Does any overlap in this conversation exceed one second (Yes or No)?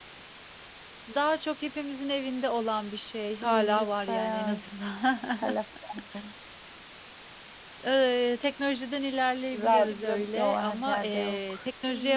Yes